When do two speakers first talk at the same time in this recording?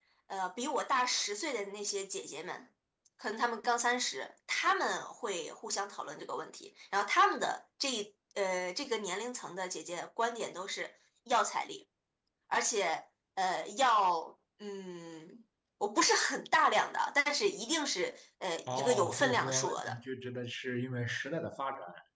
19 s

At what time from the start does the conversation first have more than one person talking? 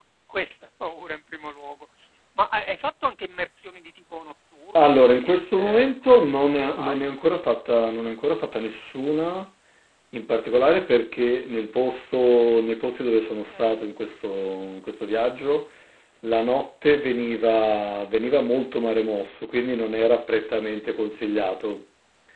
5 s

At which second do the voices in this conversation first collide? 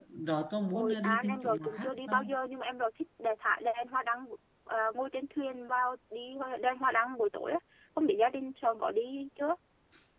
1 s

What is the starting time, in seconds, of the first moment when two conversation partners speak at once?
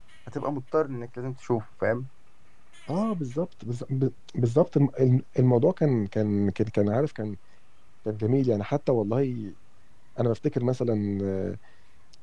none

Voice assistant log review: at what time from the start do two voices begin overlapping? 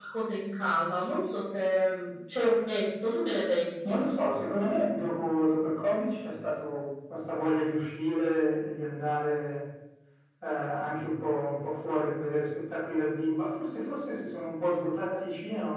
none

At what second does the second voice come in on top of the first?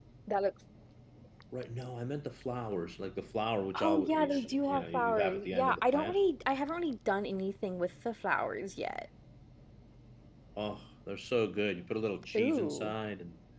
4 s

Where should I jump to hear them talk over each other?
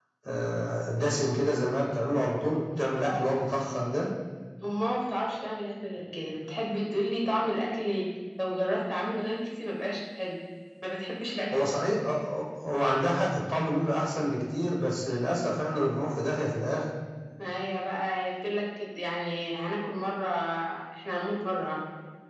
none

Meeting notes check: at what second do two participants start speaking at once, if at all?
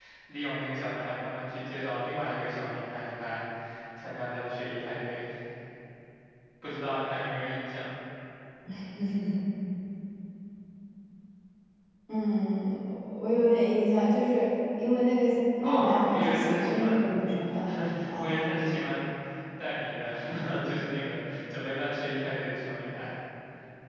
16 s

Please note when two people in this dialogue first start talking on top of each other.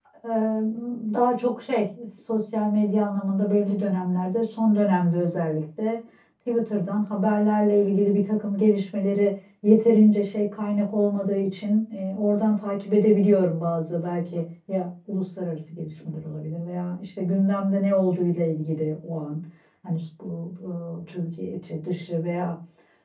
none

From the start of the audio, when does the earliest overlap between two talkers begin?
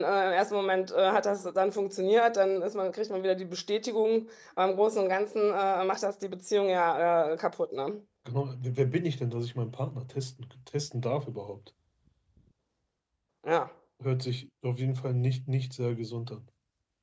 none

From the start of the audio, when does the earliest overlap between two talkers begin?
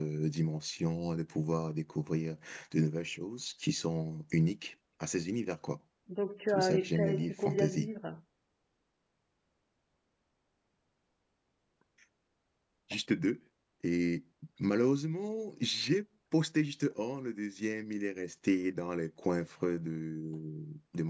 6 s

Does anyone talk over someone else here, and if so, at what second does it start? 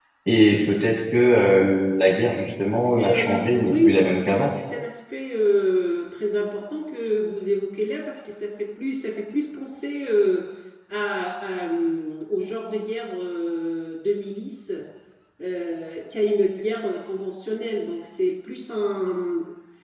3 s

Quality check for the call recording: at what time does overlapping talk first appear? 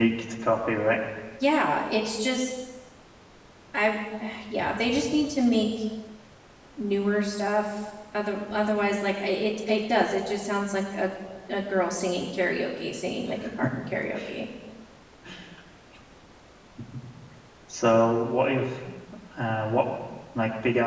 none

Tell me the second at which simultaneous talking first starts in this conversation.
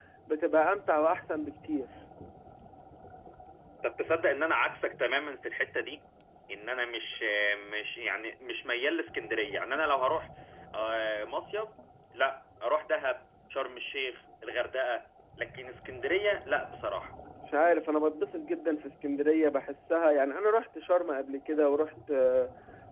none

